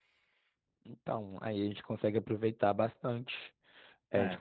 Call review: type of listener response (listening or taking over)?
taking over